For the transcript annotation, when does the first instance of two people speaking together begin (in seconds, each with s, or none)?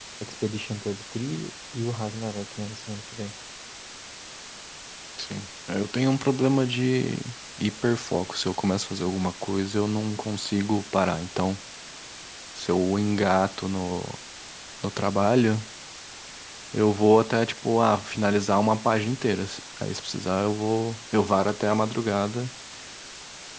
none